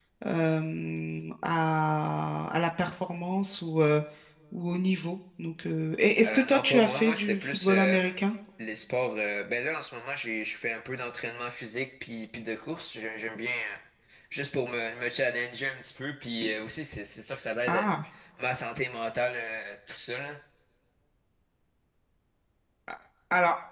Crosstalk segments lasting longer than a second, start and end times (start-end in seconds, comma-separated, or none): 6.2-8.0